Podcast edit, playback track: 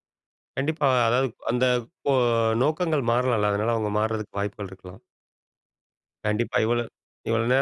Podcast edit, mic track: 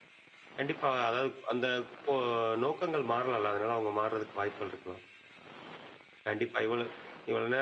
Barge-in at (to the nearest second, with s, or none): none